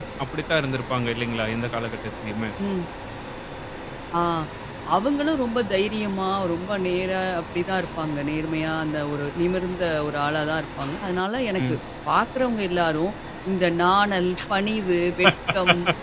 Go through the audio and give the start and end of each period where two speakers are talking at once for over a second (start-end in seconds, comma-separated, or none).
none